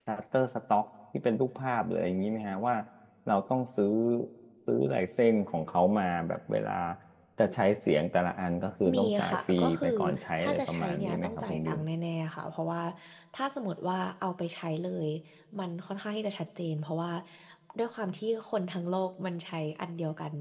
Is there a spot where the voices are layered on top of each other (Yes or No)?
Yes